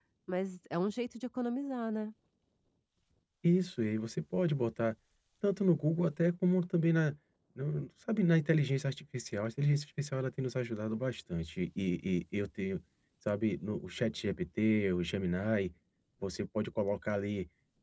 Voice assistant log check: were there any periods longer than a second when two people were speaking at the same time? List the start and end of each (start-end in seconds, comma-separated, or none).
none